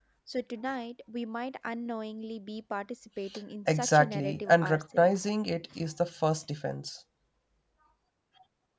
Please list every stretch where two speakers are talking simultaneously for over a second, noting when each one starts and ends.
3.7-5.3

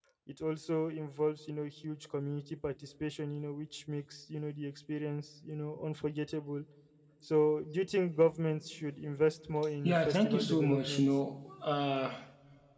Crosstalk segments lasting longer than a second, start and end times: 9.8-11.0

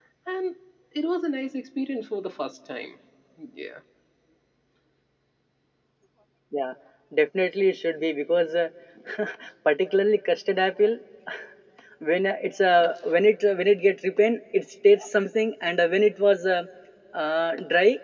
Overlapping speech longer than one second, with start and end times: none

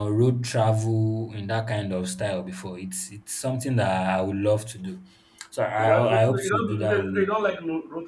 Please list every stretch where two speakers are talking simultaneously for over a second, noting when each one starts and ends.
5.8-7.2

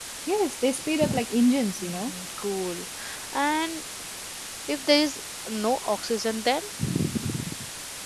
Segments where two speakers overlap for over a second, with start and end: none

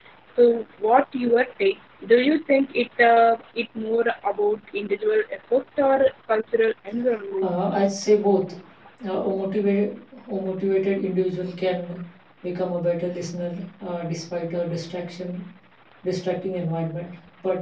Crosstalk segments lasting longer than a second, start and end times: none

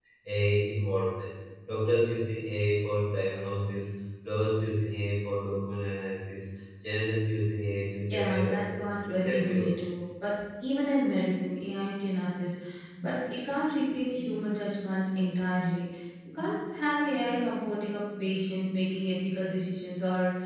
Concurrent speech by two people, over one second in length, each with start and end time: 8.1-9.7

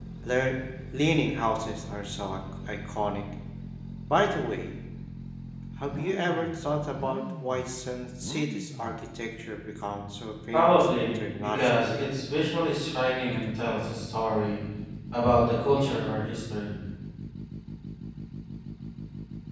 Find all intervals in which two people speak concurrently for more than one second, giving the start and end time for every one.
10.5-12.0

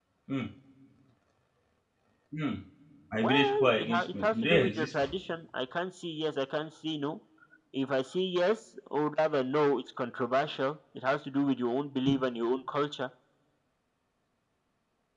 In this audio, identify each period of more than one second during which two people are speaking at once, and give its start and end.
3.1-4.9

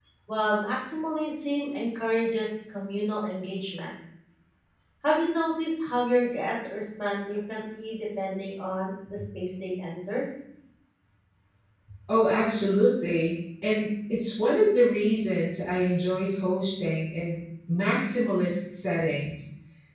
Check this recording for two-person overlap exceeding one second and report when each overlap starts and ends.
none

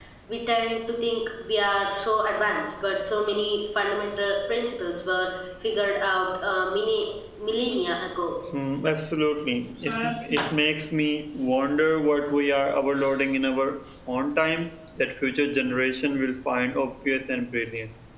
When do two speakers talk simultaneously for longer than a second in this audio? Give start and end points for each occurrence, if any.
none

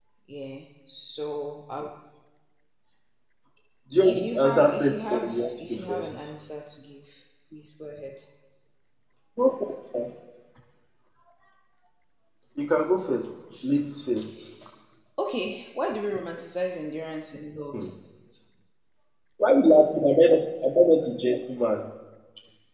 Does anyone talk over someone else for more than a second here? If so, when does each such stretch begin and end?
4.0-6.3

